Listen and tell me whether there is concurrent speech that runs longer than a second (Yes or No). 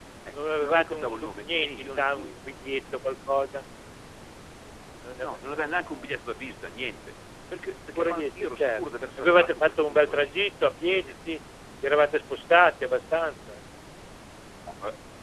Yes